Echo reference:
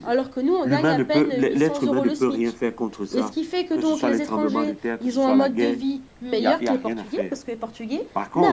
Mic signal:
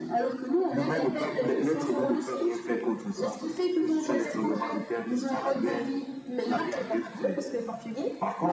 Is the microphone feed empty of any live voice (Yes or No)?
Yes